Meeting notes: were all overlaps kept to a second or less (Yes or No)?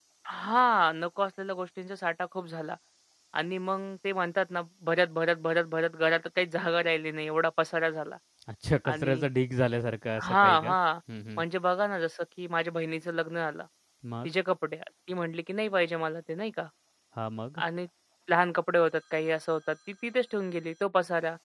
Yes